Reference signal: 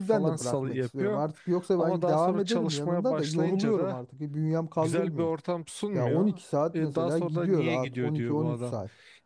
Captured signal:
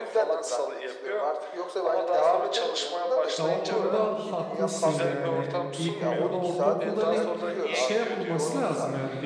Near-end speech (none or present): present